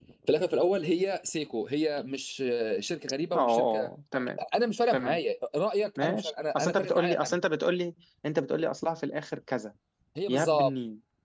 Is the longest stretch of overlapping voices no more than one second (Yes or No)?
No